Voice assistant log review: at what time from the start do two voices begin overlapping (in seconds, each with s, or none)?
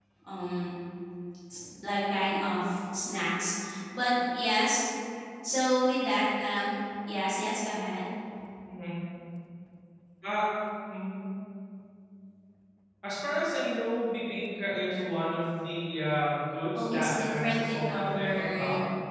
16.8 s